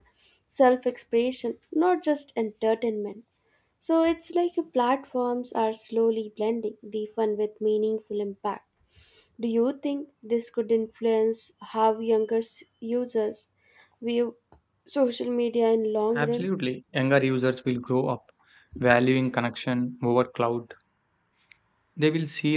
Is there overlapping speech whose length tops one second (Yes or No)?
No